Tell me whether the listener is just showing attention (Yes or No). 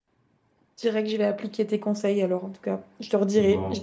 Yes